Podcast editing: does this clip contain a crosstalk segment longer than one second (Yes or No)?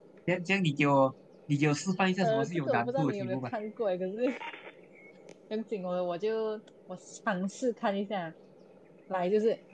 Yes